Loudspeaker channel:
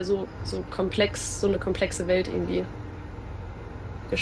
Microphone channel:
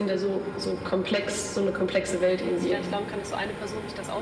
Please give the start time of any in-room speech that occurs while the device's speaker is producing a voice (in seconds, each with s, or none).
2.5 s